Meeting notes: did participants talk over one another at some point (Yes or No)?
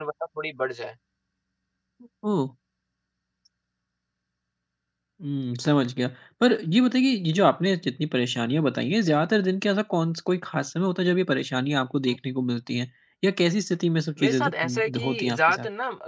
Yes